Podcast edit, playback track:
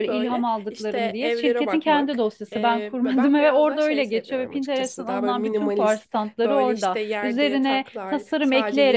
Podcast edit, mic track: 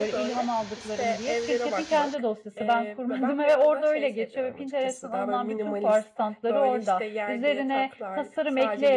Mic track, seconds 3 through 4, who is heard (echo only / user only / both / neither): echo only